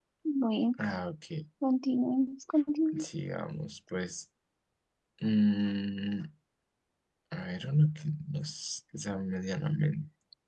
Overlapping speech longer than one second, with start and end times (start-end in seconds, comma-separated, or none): none